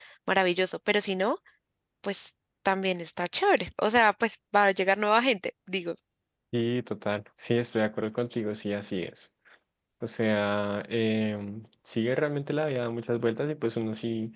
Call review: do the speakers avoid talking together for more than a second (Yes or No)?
Yes